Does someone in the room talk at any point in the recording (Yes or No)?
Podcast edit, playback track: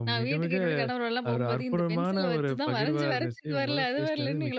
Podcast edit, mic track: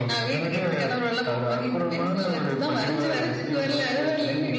No